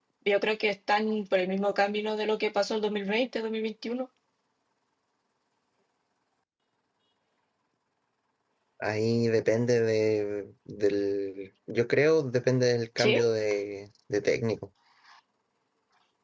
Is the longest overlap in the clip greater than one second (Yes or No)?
No